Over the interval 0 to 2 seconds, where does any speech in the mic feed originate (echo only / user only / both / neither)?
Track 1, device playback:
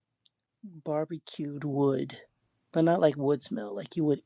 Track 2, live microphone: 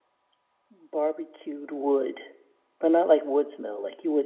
echo only